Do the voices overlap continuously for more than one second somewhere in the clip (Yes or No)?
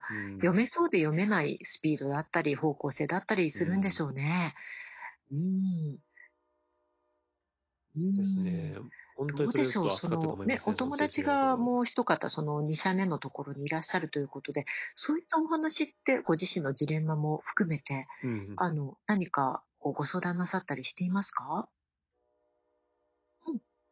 Yes